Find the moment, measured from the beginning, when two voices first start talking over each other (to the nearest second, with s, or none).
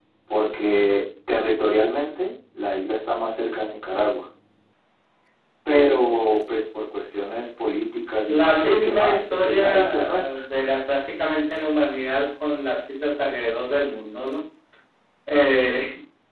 8 s